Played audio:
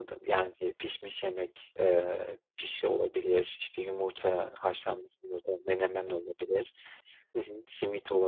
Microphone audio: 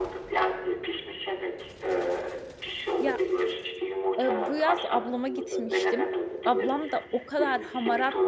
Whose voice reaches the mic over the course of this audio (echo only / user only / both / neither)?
both